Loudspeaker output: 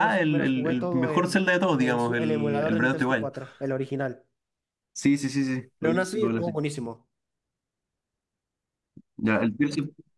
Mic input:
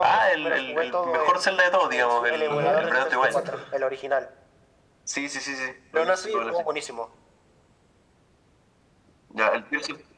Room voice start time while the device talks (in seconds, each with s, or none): 2.5 s